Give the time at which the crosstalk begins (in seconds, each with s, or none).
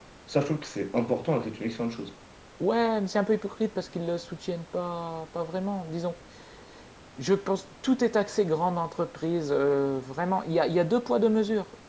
none